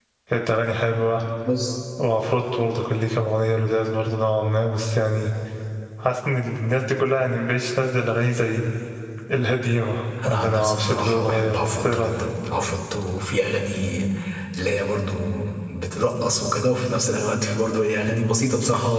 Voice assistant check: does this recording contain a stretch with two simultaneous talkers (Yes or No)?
Yes